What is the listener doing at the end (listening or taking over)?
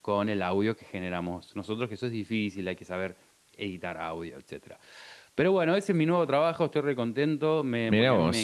listening